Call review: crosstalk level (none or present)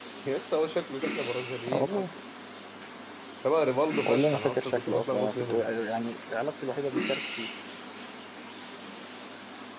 present